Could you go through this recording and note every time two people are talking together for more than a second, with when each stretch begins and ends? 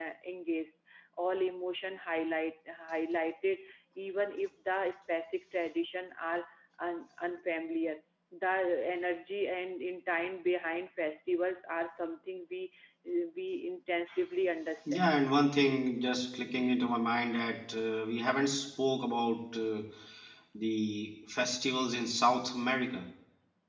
none

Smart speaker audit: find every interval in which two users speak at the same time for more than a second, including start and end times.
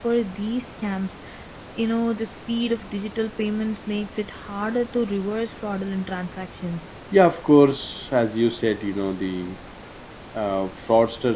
none

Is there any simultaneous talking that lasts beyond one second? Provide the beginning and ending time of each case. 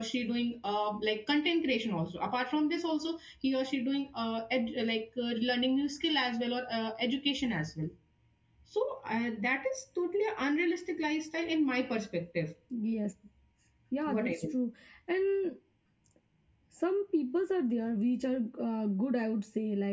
none

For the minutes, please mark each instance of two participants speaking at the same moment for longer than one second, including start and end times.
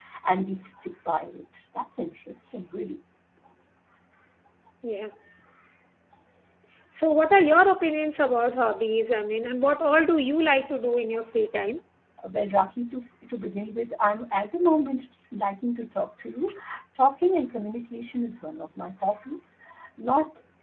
none

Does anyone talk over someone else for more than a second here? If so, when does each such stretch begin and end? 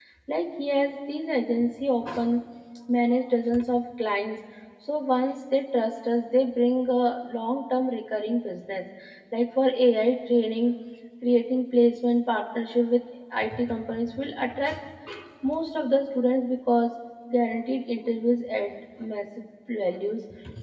none

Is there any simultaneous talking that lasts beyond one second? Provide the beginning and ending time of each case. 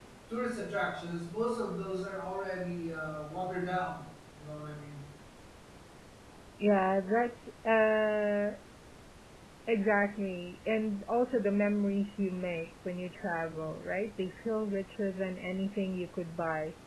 none

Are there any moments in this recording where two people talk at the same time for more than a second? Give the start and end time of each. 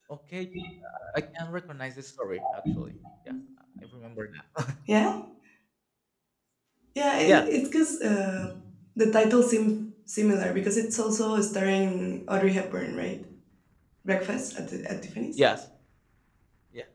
none

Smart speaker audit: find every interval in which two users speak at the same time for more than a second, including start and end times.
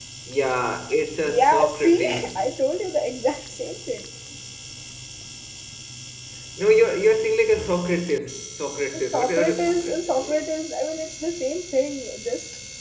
1.2-2.5, 8.9-10.2

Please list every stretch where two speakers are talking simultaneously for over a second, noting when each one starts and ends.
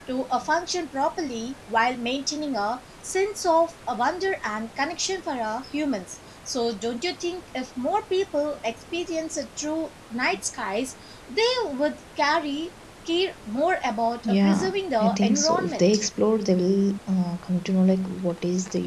14.2-16.0

